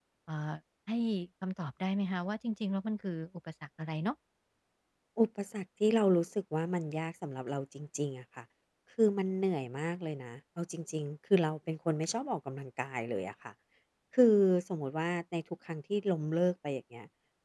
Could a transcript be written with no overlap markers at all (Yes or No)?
Yes